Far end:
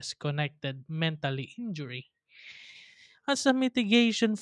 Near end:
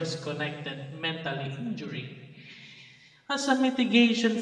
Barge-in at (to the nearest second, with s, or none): none